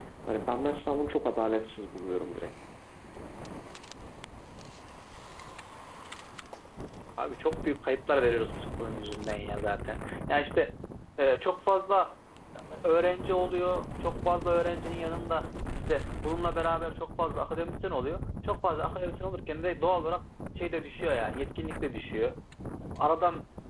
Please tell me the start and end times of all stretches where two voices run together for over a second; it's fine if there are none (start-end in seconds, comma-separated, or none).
none